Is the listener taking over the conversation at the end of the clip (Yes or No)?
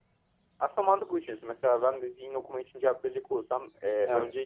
No